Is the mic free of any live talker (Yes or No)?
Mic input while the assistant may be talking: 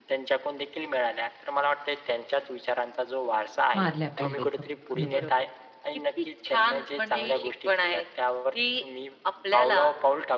No